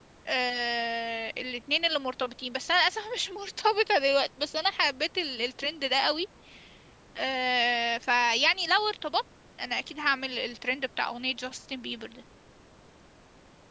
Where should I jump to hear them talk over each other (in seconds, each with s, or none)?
none